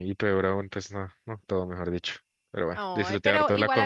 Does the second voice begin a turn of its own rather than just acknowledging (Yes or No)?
Yes